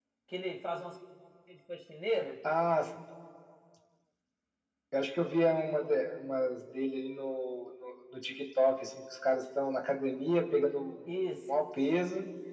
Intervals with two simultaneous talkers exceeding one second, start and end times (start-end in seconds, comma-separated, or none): none